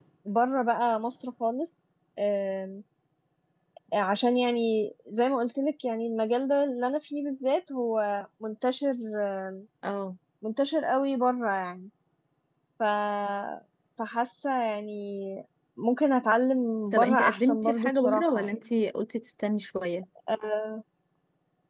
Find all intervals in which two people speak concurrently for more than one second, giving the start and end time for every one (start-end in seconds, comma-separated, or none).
16.9-18.6